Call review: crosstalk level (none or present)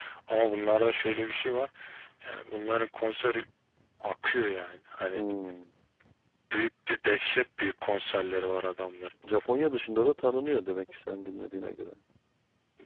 none